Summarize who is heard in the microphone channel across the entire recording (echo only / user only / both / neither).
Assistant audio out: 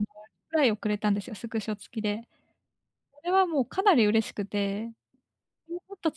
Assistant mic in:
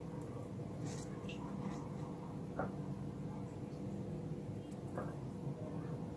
neither